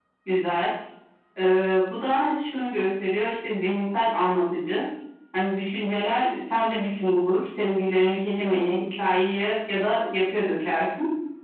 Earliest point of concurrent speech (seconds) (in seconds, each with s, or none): none